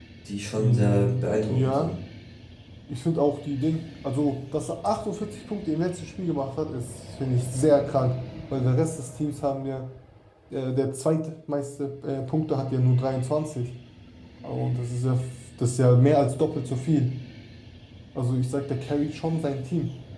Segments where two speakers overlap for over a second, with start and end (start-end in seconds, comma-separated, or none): 0.6-1.9